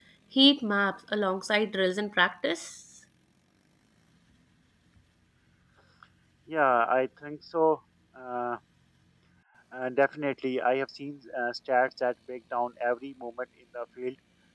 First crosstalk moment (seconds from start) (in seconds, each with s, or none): none